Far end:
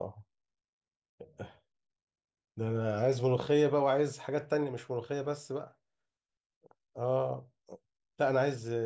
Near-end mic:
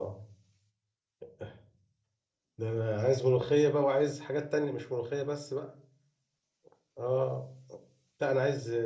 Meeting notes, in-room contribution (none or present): none